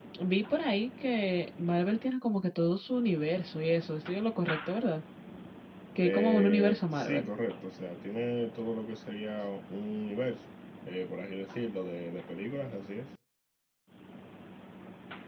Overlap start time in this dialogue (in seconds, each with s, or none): 6.0 s